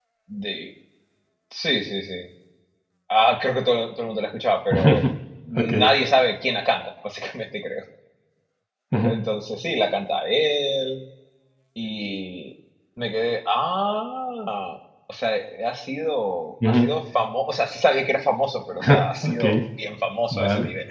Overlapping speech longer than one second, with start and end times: none

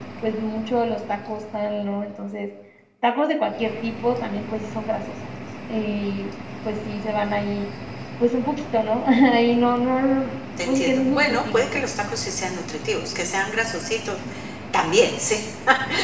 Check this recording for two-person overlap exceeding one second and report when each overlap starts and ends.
10.6-11.8

